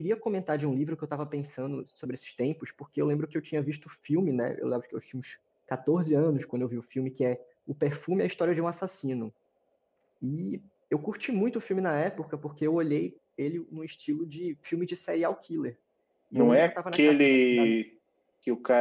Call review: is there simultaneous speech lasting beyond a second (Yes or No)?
Yes